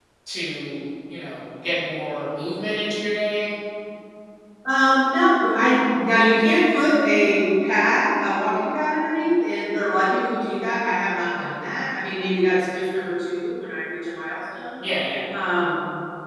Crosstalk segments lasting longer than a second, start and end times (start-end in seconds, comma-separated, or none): none